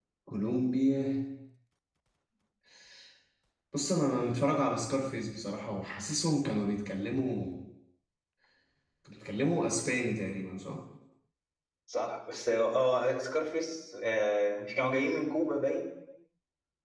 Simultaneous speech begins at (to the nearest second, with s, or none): none